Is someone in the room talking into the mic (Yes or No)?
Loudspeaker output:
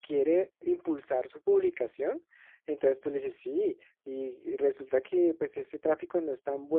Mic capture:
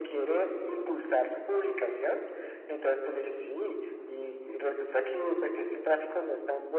No